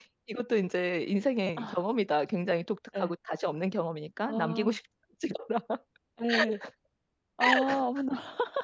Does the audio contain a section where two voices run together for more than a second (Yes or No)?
No